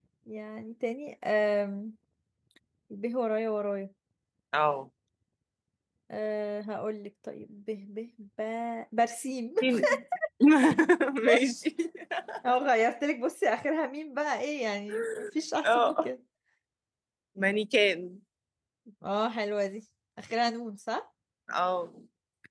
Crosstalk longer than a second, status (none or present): none